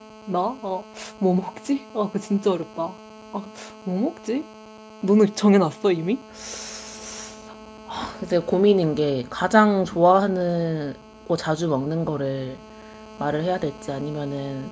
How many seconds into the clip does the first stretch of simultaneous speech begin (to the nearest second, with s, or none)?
none